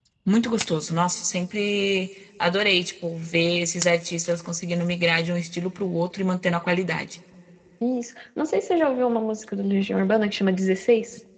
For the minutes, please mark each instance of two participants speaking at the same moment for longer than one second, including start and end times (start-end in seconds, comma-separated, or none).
none